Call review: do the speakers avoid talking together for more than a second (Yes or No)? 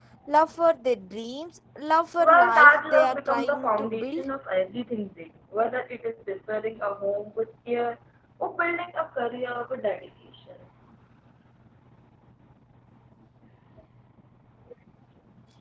No